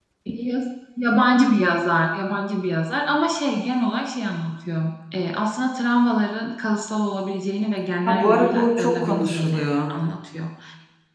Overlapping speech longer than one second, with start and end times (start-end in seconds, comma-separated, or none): 8.1-9.7